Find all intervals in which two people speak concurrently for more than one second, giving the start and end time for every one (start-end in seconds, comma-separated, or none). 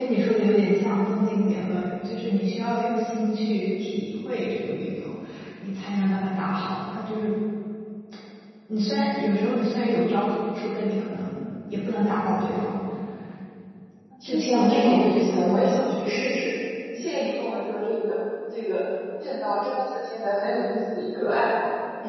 14.2-15.8